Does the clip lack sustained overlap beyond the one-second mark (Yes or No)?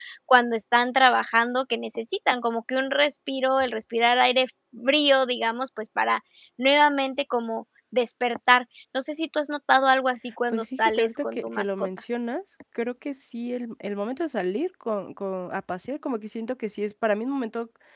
No